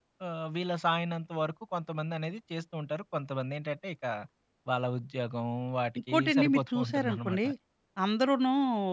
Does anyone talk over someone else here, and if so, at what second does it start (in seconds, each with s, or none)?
6.1 s